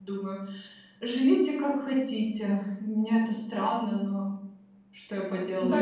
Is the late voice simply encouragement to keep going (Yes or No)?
No